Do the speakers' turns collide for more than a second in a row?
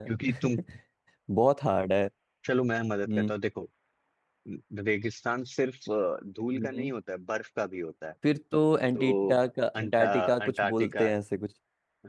Yes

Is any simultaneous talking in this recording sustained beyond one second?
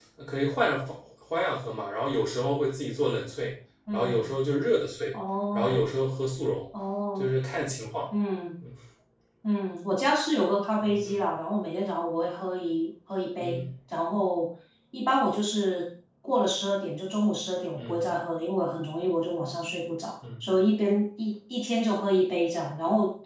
No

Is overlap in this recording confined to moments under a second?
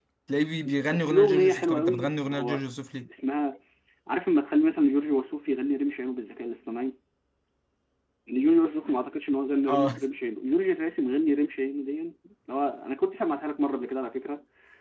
No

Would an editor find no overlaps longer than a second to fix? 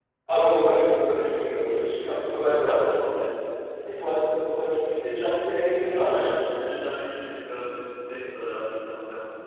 Yes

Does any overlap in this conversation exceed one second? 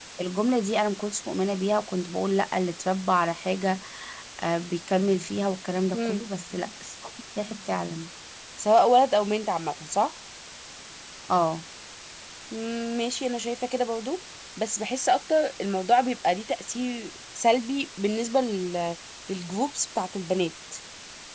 No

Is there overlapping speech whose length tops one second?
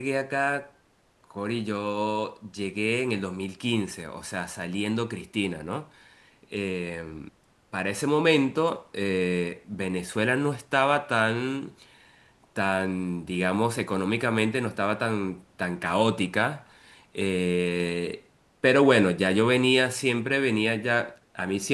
No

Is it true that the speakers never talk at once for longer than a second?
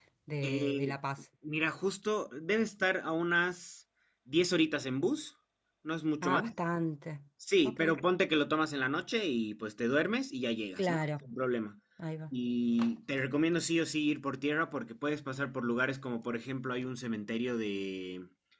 Yes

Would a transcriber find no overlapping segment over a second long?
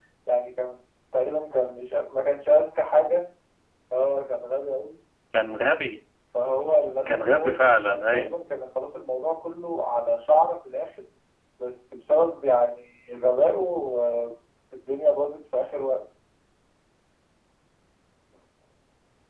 No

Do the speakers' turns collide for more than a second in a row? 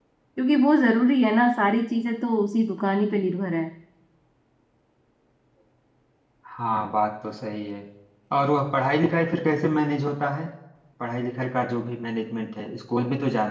No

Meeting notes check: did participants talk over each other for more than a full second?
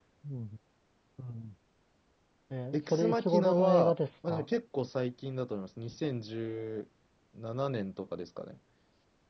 Yes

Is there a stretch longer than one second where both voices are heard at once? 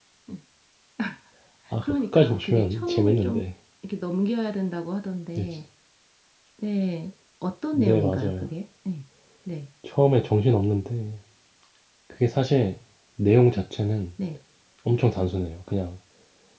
Yes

